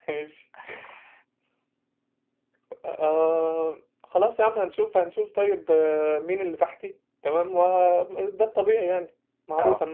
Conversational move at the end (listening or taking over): listening